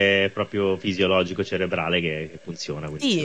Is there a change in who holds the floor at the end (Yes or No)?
Yes